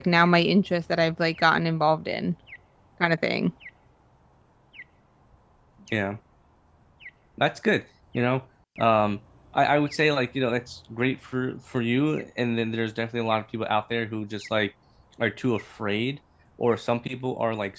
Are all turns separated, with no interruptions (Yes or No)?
Yes